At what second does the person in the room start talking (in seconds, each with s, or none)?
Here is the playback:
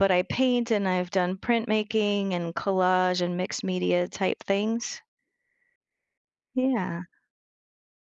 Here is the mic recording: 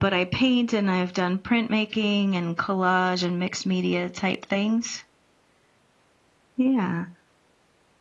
none